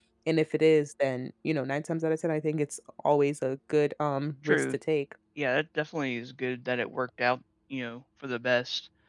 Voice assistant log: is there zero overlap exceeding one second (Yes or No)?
Yes